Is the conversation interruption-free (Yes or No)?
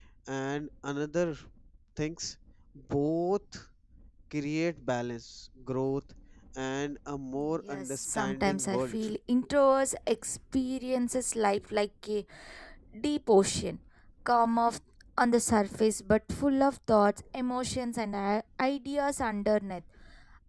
No